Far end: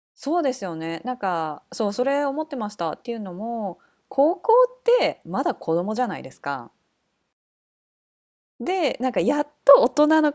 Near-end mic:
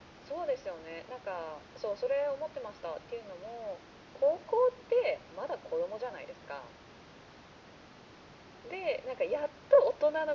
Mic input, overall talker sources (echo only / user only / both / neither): echo only